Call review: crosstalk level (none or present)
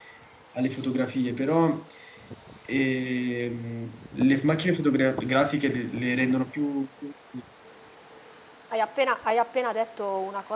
none